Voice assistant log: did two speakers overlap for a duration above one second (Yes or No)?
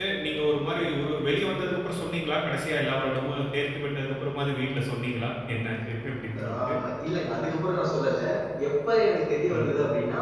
No